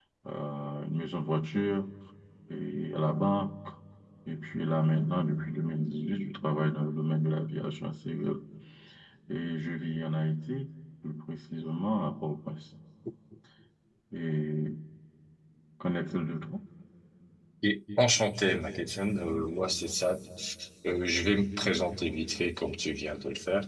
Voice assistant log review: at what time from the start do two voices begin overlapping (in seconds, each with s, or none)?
none